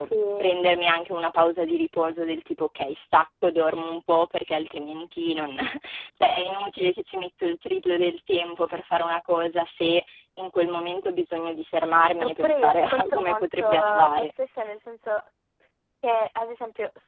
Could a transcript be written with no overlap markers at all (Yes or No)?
No